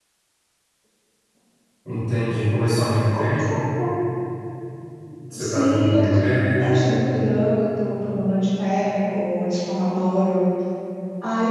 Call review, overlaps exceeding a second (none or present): present